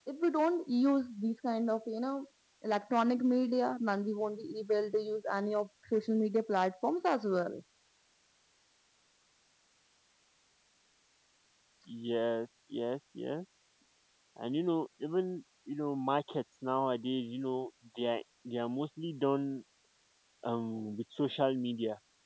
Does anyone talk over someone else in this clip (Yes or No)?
No